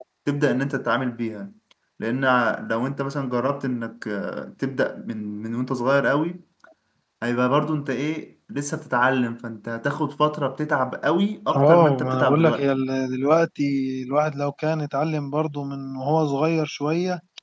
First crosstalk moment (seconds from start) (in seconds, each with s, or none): 11.5 s